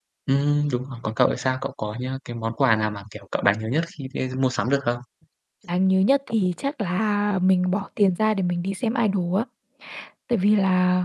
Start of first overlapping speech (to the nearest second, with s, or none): none